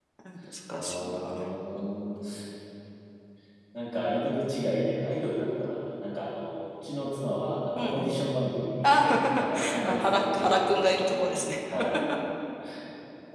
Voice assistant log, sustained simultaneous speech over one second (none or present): present